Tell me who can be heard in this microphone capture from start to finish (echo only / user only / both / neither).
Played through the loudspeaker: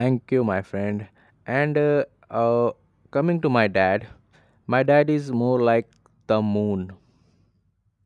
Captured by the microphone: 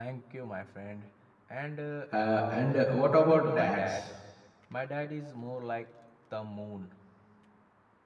both